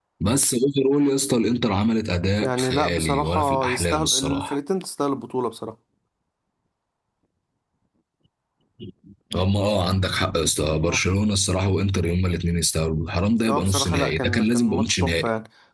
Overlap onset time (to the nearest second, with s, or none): 2 s